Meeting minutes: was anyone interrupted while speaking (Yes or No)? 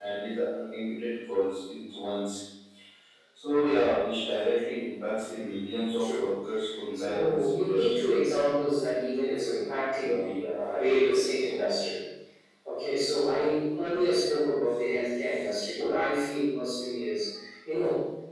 Yes